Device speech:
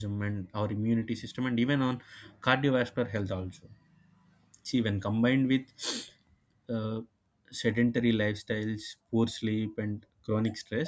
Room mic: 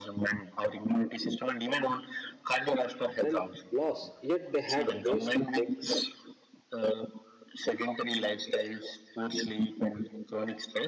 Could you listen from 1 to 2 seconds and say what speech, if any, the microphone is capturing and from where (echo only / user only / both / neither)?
echo only